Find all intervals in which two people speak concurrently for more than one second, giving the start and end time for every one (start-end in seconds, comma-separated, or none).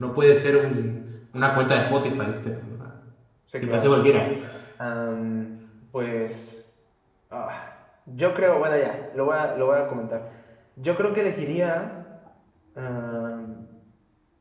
none